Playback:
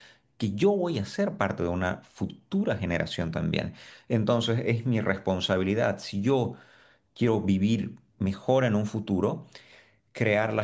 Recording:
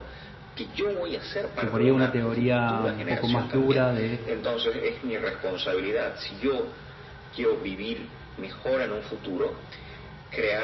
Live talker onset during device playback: 1.6 s

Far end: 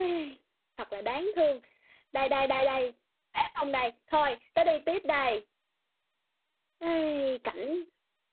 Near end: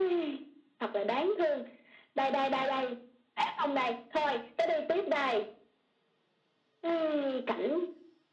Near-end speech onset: none

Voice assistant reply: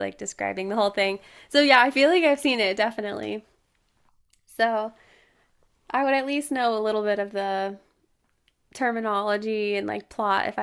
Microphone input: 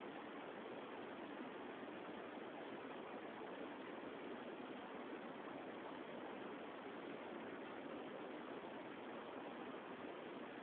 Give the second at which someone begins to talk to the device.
none

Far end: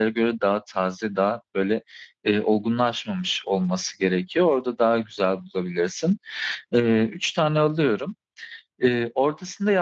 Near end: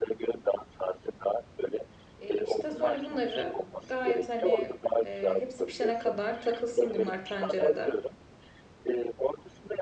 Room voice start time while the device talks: 2.2 s

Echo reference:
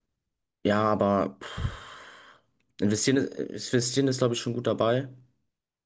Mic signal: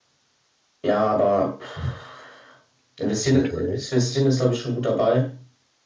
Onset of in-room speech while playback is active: 3.2 s

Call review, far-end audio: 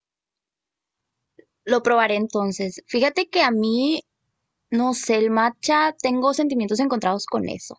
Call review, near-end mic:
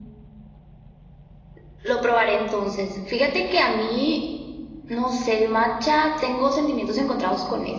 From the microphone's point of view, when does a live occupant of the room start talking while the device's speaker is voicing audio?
none

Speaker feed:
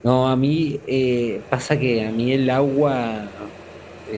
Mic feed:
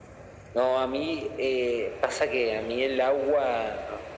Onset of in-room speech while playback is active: none

